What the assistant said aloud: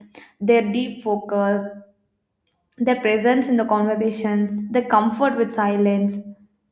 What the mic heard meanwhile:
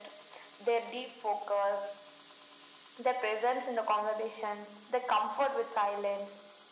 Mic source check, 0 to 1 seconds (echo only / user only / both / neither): echo only